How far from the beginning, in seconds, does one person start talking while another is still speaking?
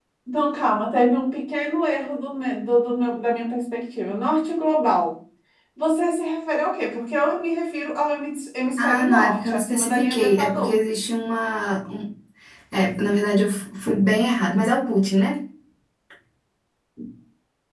8.8 s

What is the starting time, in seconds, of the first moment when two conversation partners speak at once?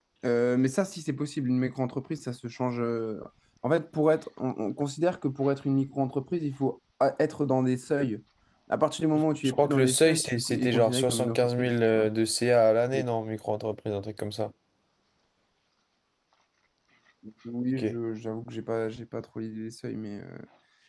9.4 s

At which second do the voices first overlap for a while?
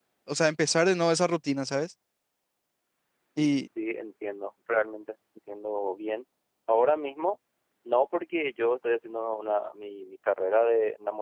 none

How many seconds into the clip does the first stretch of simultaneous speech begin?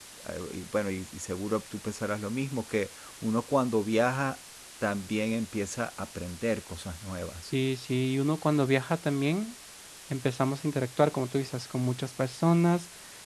none

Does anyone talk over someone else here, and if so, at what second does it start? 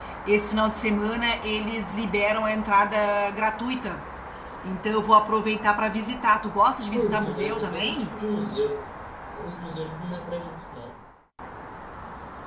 6.9 s

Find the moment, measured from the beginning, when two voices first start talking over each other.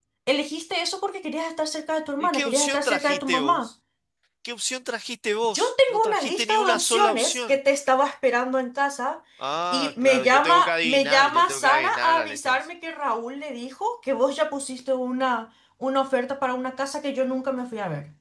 2.2 s

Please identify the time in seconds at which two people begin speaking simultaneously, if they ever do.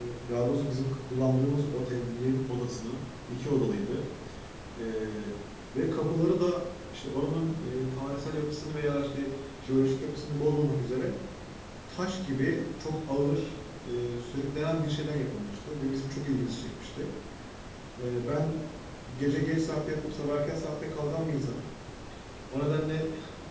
none

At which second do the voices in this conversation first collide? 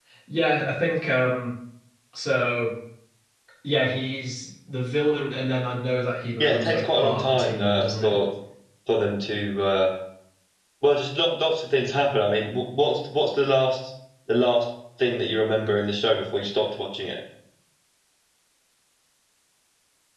6.4 s

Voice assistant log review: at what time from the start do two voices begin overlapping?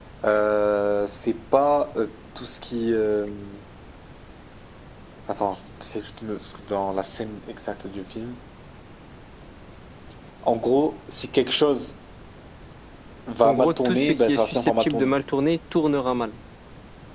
13.4 s

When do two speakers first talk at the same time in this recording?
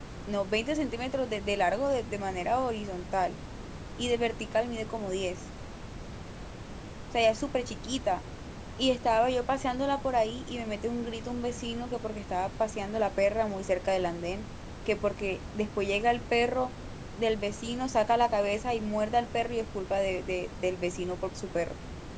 none

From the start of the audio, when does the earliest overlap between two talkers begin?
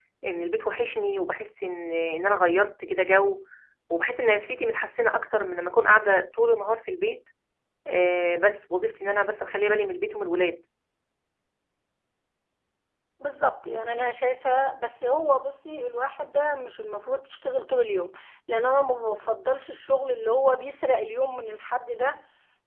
none

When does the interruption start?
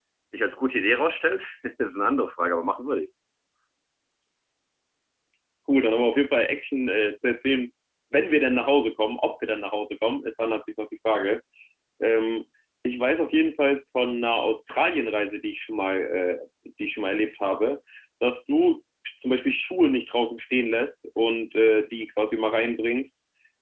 none

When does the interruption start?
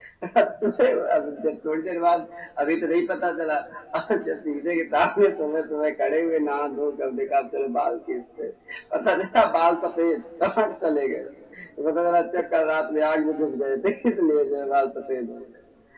none

